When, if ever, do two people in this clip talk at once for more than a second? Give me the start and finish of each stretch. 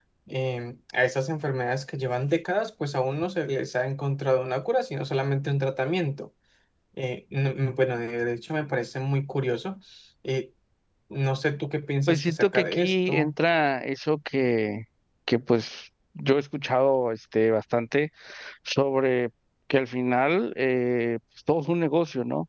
12.1-13.4

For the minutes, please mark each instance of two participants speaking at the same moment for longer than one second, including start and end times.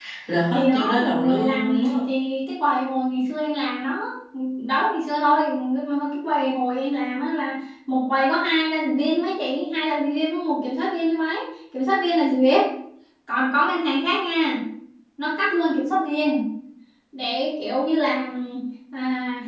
0.5-1.8

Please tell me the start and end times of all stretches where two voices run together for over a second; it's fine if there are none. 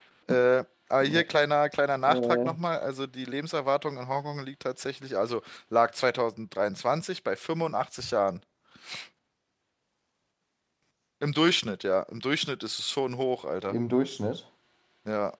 none

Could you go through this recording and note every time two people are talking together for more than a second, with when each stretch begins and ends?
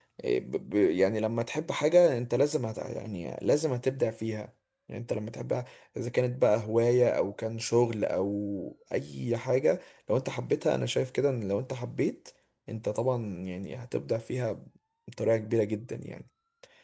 none

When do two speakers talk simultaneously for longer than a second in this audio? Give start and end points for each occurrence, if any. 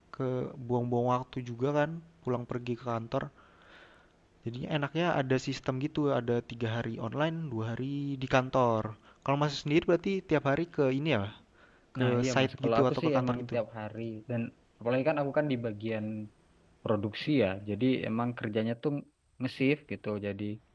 12.0-13.6

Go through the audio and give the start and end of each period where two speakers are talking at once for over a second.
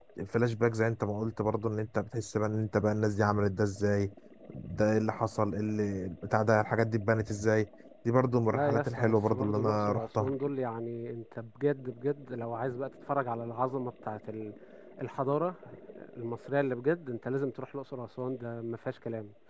8.5-10.3

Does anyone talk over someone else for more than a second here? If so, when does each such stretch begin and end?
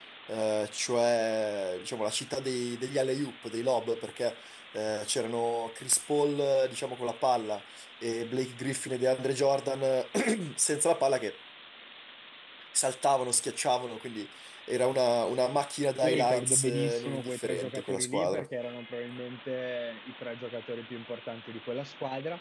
16.0-18.4

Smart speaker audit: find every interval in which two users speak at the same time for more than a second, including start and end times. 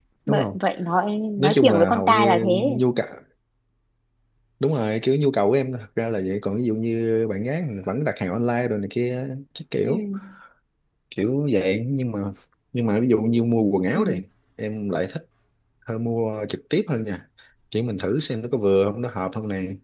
1.4-2.8

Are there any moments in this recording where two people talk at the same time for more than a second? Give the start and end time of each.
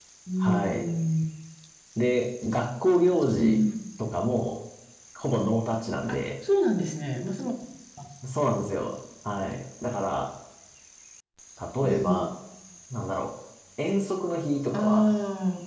none

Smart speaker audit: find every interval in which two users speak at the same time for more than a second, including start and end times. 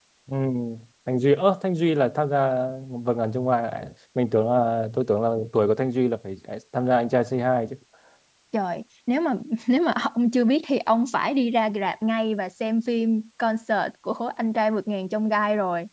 none

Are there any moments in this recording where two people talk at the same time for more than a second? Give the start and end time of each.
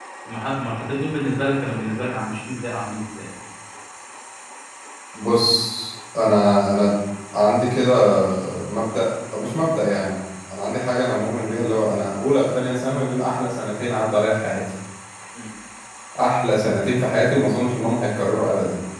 none

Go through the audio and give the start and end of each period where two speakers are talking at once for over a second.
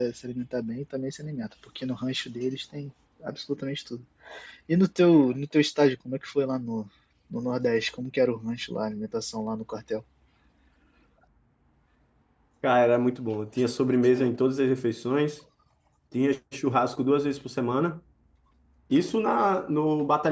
none

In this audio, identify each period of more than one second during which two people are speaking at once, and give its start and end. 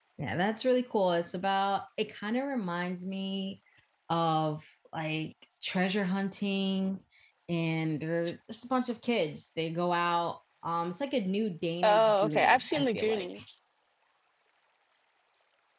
11.8-13.4

